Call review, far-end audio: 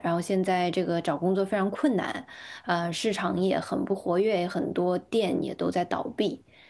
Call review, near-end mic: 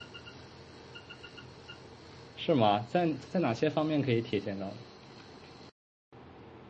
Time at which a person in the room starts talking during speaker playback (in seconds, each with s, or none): 2.4 s